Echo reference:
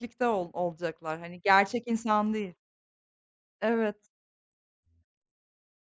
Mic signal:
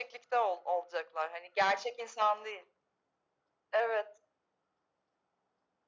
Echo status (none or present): present